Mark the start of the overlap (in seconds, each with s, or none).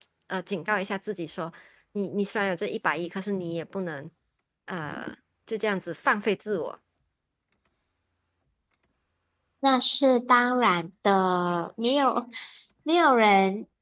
none